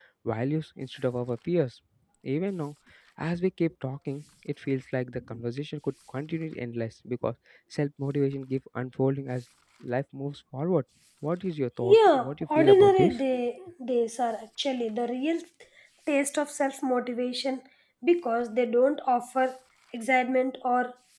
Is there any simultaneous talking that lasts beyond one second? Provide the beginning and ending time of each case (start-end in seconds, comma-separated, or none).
11.8-13.2